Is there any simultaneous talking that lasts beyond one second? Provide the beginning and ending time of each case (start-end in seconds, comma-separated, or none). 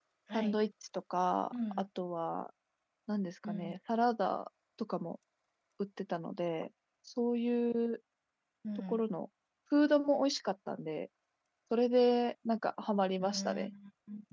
none